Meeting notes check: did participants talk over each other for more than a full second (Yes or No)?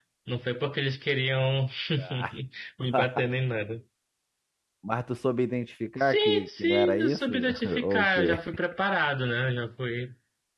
Yes